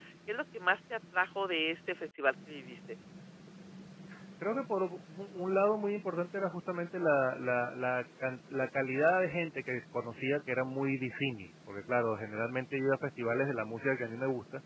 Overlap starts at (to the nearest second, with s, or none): none